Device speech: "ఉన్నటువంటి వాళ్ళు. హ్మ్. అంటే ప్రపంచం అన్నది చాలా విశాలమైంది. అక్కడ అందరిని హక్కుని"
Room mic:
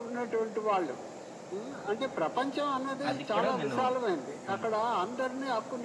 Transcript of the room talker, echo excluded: అది కూడా నేను హ్మ్.

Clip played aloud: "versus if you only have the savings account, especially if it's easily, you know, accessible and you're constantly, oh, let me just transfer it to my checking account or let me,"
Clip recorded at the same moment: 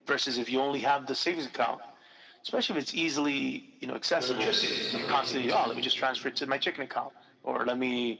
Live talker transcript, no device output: your electricity. Some, you know, you need to,

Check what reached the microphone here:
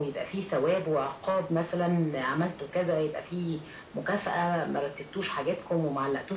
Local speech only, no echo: none

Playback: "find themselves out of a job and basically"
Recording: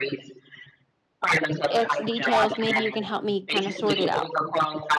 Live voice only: X details, maybe you can help me kind of sort it out."

